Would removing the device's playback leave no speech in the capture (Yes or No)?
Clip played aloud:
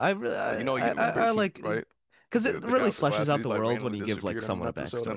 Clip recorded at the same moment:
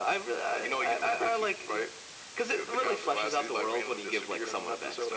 Yes